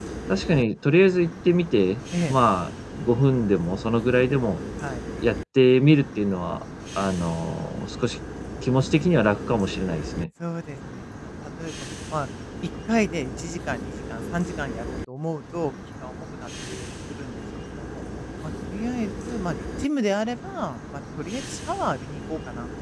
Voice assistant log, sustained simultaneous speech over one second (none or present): none